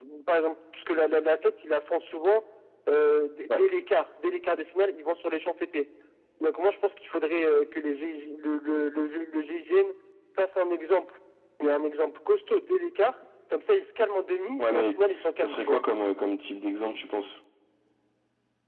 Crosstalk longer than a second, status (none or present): none